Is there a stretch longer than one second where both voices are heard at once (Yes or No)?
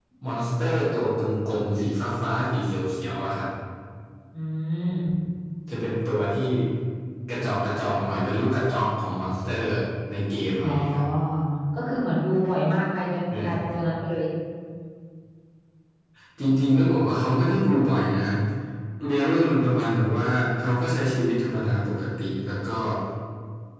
No